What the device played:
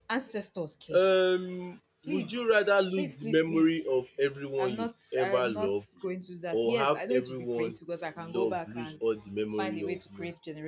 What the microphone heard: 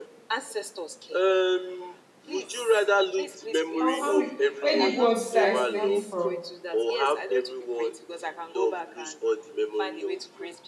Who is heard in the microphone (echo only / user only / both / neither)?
both